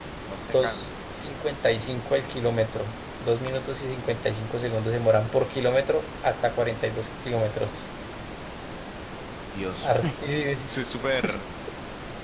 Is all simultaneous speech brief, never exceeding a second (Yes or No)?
Yes